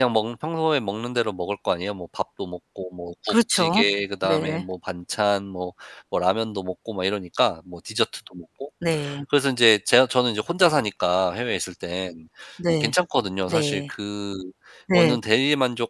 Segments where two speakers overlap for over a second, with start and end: none

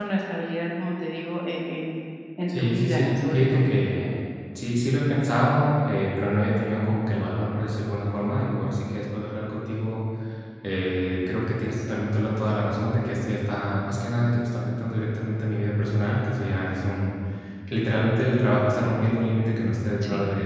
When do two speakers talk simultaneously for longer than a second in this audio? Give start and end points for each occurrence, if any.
2.5-3.7

